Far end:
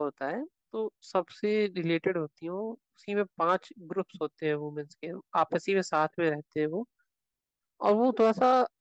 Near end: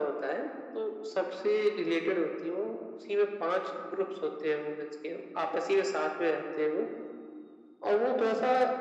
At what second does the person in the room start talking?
none

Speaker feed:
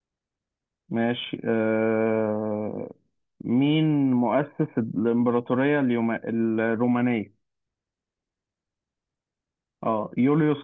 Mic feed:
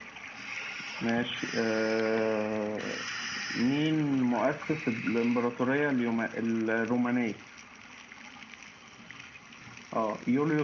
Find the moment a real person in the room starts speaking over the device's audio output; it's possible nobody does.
none

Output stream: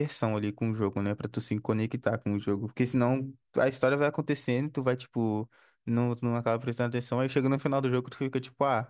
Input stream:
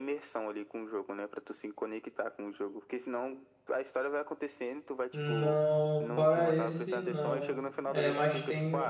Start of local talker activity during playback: 5.1 s

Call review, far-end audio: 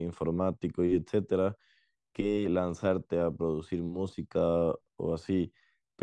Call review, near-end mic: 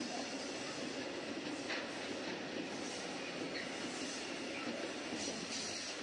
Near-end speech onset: none

